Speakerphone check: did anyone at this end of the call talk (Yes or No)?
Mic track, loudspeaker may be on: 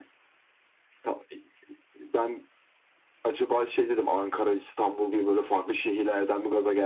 No